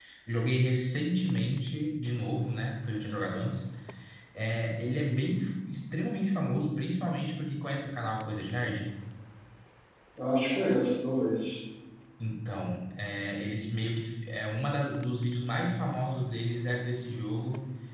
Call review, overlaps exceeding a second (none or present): none